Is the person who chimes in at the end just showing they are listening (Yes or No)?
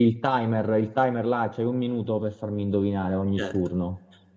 No